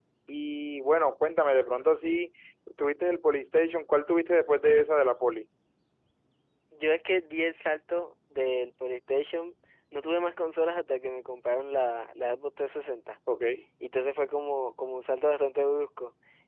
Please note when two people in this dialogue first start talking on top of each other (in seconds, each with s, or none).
none